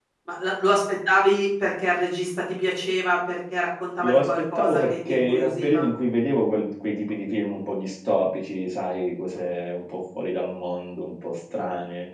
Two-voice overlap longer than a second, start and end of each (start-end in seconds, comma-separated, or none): 4.0-5.9